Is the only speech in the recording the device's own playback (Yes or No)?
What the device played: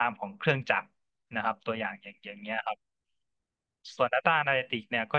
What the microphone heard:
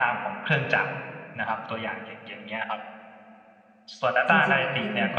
No